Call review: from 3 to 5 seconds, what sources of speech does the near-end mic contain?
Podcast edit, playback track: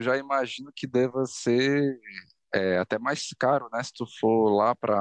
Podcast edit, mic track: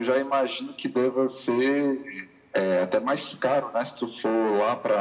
echo only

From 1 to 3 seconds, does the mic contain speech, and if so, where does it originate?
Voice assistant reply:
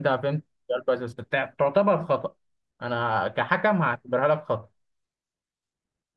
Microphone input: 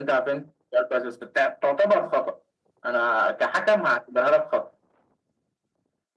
echo only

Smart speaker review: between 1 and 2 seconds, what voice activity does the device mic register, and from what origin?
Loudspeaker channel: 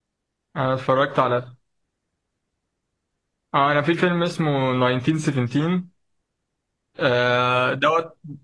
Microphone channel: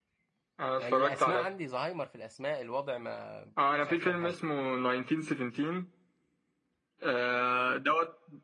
both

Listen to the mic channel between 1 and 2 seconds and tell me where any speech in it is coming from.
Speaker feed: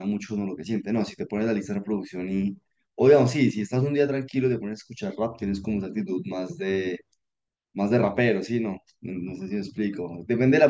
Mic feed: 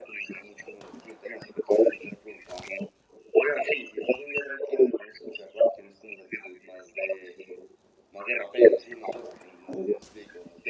echo only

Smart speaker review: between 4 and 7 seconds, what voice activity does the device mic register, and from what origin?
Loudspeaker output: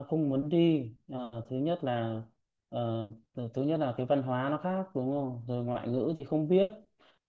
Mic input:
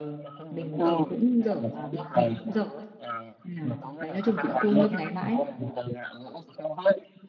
both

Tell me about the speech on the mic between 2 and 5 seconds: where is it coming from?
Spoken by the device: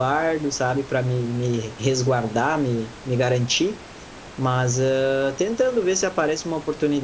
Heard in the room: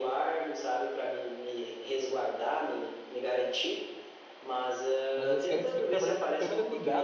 echo only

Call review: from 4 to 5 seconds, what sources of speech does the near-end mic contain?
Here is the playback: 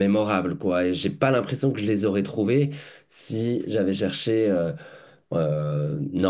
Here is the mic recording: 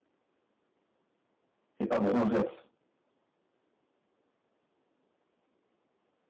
neither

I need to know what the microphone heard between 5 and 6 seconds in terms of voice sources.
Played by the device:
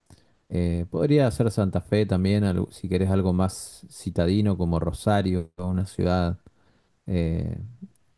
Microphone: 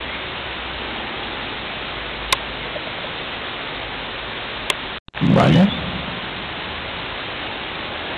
user only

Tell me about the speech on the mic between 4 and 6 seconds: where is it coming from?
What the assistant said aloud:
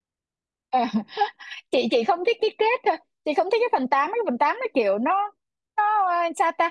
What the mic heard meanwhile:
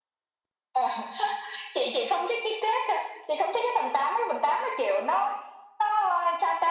echo only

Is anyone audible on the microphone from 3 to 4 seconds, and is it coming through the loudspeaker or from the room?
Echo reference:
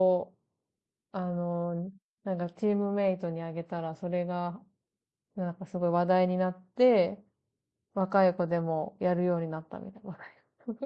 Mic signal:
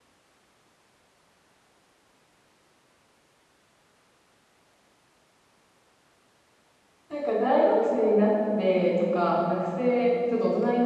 neither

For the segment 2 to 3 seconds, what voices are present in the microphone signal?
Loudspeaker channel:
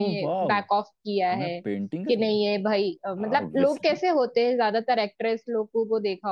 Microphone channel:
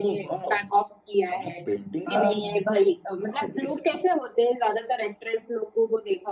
both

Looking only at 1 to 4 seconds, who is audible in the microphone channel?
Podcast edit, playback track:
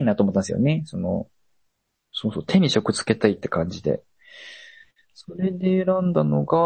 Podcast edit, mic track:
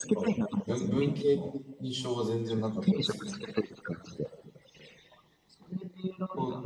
both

